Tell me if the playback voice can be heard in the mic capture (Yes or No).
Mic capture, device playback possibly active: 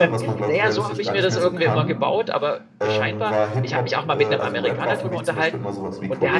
Yes